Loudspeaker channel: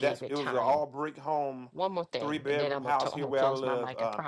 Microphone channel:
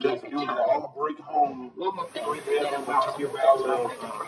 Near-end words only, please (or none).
none